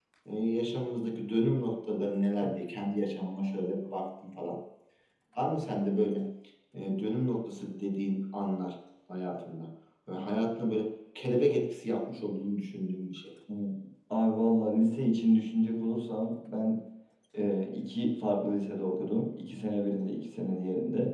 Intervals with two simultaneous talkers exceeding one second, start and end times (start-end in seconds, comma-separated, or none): none